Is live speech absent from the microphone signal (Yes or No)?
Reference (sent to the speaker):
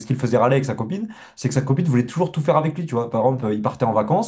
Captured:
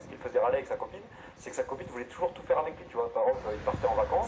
Yes